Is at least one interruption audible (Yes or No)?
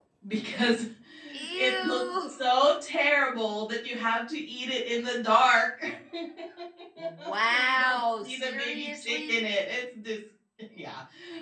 Yes